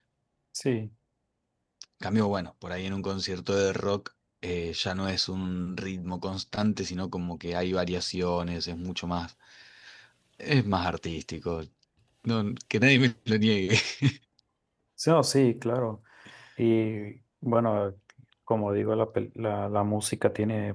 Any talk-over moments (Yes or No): No